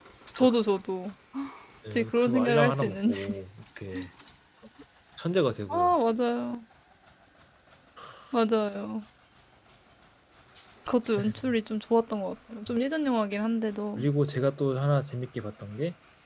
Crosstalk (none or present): present